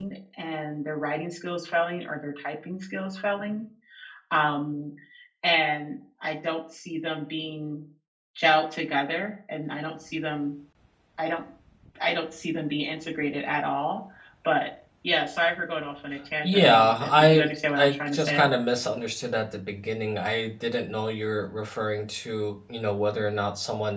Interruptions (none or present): present